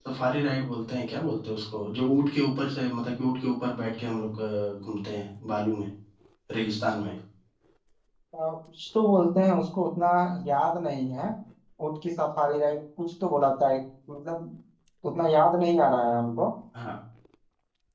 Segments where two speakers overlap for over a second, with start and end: none

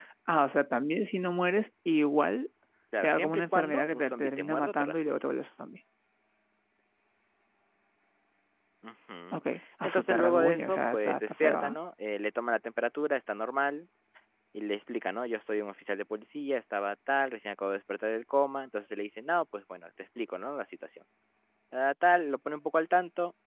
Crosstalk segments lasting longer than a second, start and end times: 3.0-5.2, 9.8-11.8

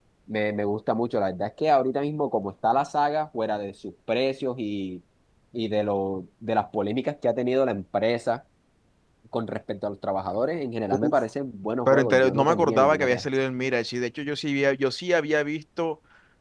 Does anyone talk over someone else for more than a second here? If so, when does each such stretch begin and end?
11.9-13.3

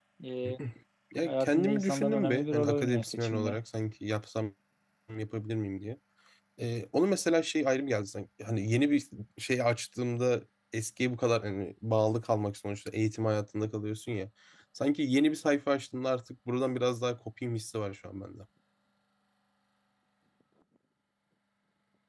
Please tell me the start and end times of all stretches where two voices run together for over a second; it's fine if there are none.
1.2-3.6

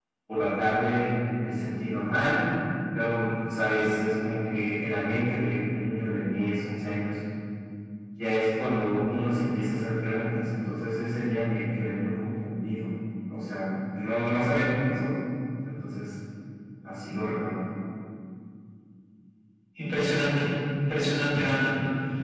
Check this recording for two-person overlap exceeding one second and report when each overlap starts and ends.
none

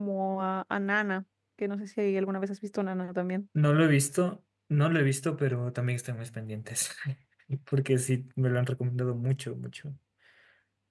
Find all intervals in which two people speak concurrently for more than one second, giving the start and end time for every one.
none

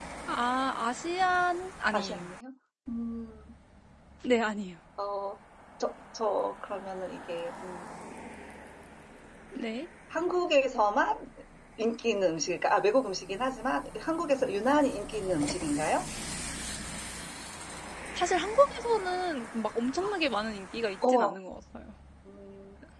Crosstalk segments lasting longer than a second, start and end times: none

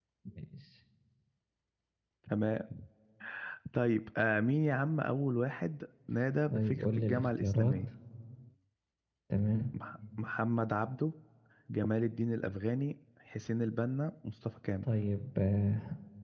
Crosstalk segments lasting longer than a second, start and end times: 6.5-7.7

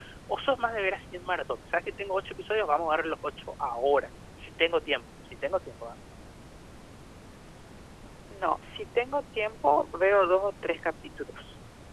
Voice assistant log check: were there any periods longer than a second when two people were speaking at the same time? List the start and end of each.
none

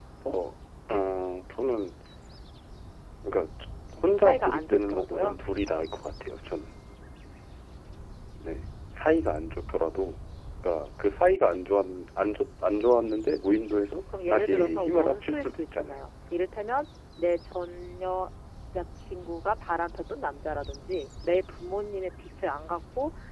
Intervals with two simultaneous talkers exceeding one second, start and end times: 4.2-5.4, 14.3-16.0

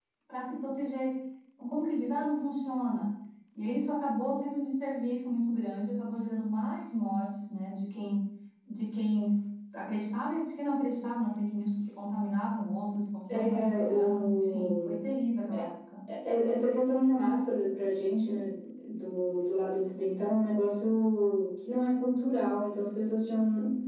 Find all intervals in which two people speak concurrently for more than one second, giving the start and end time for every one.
13.3-14.7

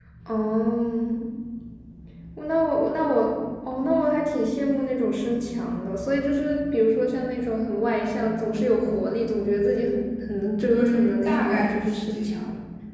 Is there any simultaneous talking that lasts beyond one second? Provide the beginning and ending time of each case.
10.7-12.4

